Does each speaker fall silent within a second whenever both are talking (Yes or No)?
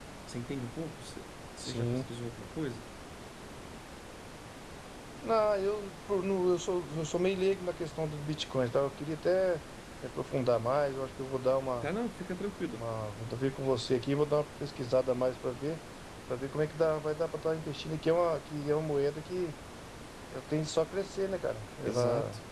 Yes